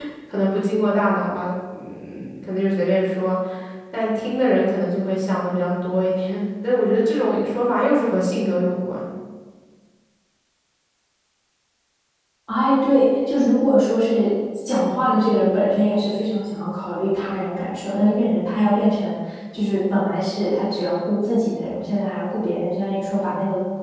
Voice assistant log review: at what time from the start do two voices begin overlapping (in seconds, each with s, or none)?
none